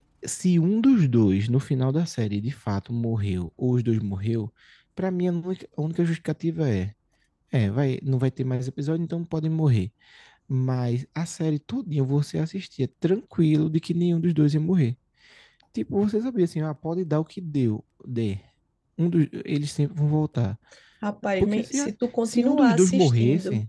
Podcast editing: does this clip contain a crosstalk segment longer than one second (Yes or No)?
Yes